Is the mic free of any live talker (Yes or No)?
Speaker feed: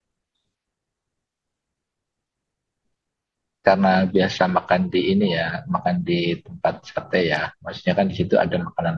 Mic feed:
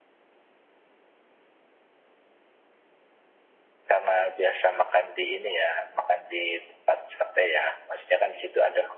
Yes